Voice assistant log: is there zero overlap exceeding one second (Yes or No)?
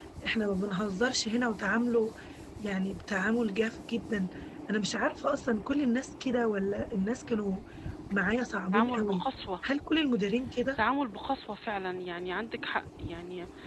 Yes